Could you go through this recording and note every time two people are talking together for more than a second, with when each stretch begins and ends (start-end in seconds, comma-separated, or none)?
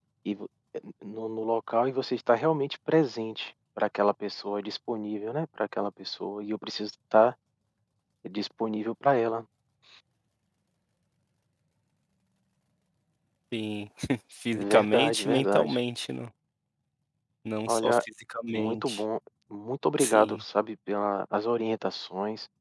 14.6-15.8